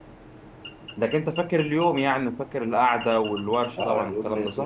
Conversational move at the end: taking over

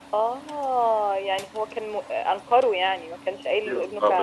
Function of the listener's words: taking over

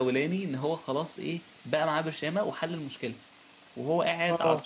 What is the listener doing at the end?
listening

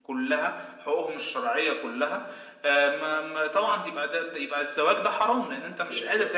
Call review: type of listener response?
taking over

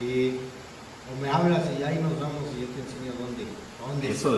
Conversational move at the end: taking over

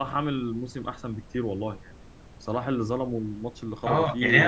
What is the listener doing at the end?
taking over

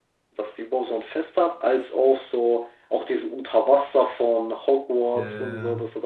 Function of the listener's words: listening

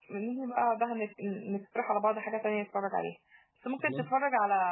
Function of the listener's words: listening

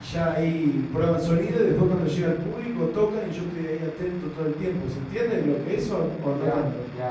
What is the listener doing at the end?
taking over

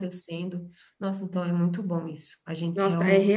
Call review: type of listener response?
taking over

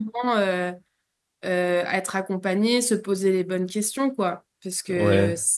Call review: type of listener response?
listening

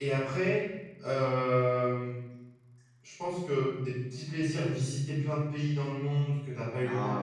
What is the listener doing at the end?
listening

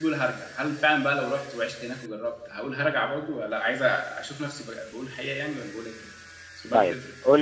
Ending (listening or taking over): taking over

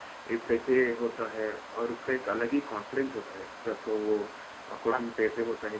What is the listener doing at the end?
listening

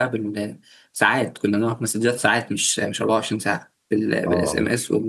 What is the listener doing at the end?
listening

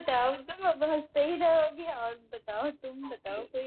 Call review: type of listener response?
taking over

